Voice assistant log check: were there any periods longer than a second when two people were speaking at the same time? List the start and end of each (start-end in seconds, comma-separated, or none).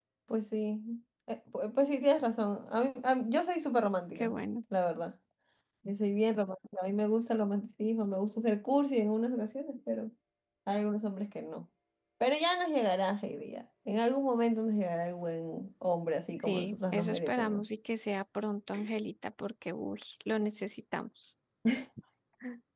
16.4-17.6